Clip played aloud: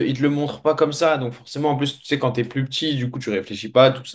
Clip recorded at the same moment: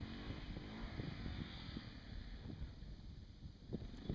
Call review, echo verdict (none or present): none